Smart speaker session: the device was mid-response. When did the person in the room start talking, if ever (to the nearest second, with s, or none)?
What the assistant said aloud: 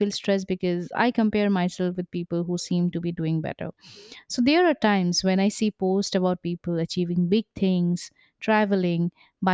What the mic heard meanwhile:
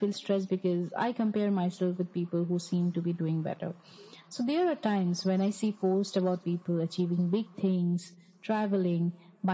none